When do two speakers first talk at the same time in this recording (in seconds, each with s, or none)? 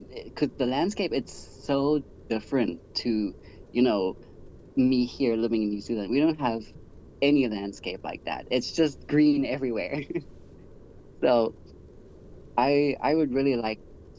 none